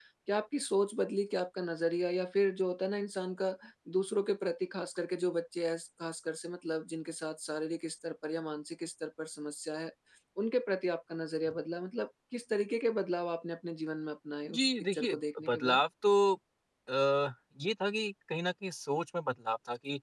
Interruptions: present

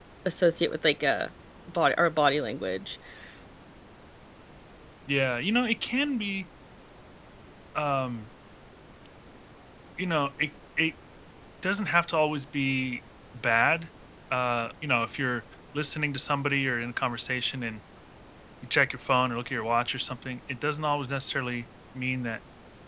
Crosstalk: none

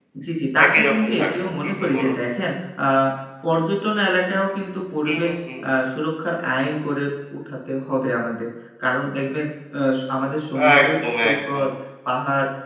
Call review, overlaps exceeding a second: present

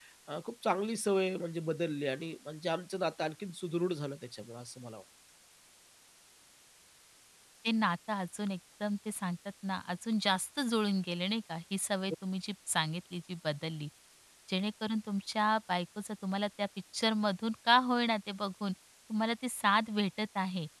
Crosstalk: none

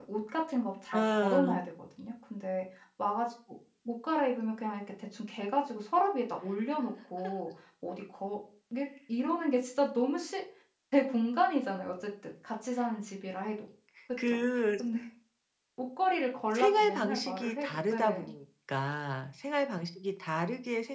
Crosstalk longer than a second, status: present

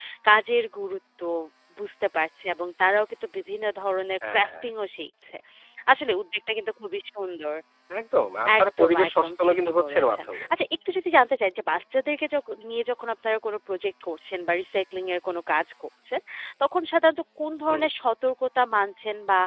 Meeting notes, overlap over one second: present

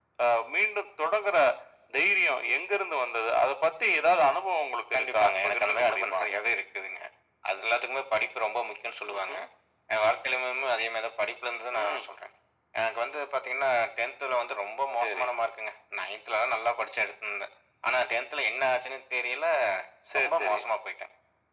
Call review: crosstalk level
present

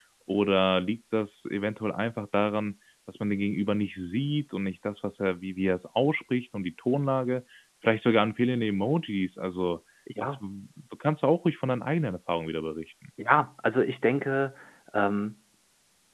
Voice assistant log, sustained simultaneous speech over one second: none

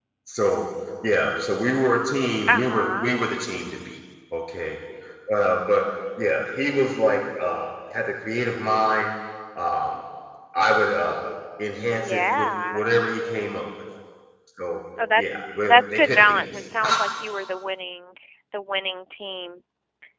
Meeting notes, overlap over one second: present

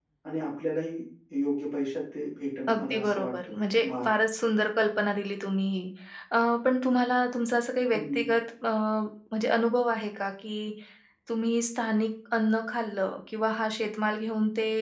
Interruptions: present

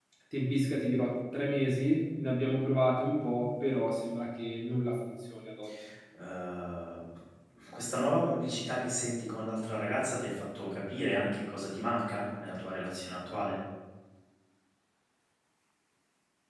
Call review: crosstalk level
none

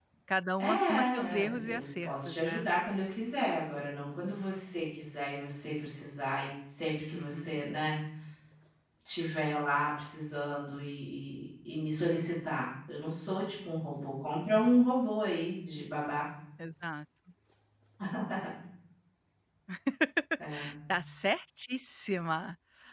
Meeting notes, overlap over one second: present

